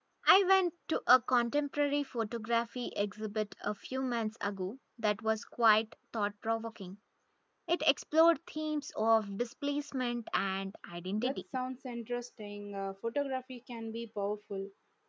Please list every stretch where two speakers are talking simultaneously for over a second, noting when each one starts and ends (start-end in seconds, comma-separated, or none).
none